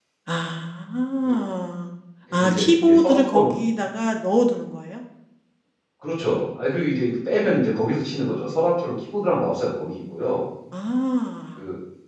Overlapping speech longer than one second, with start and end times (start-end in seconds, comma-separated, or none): 2.3-3.6